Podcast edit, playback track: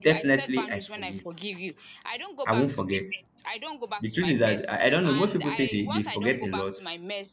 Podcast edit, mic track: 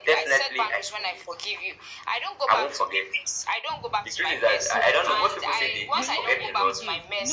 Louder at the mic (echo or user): echo